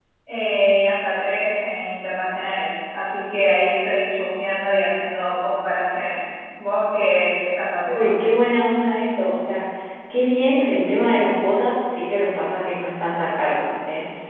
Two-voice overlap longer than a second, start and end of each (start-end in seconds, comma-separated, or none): none